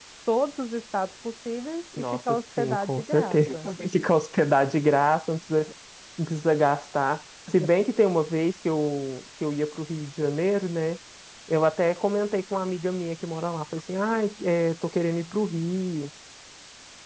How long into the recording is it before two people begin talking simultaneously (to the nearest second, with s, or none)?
2 s